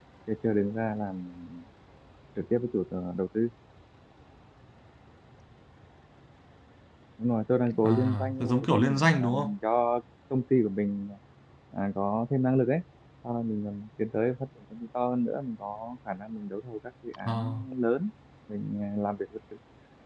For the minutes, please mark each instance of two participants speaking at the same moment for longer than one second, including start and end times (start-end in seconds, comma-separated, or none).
7.8-9.5